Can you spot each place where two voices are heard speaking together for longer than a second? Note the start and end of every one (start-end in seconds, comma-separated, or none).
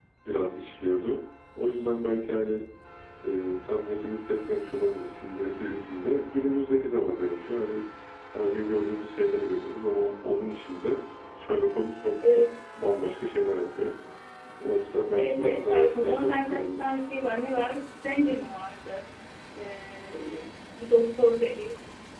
15.1-16.9